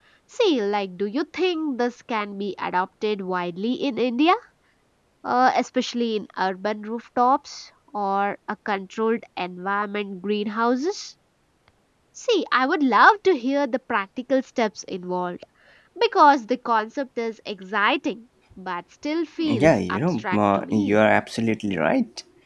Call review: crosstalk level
present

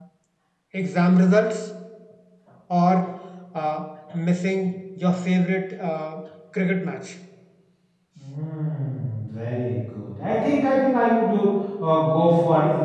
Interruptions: none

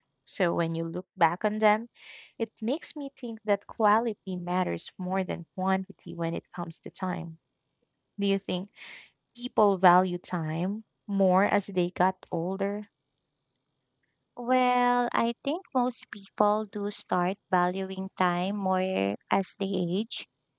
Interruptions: none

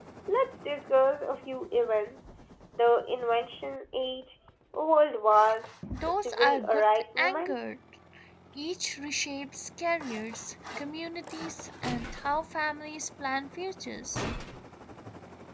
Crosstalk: present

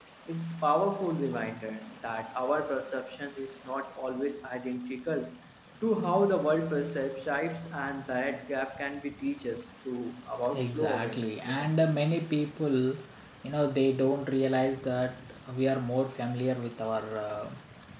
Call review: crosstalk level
present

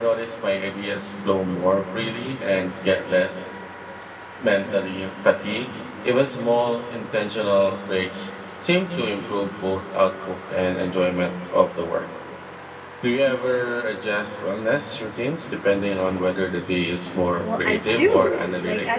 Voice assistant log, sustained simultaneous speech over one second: present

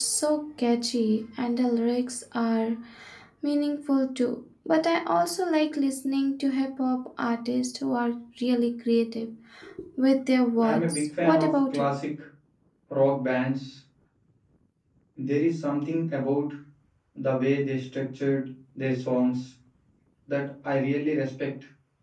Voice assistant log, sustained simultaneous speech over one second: present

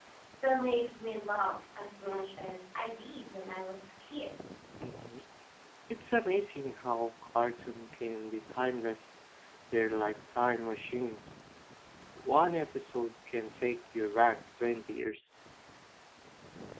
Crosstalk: none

